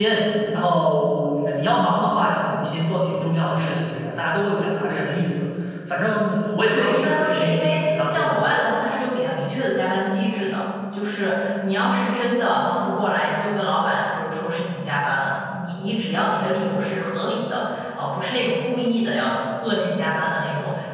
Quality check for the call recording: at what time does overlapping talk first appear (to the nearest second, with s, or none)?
7 s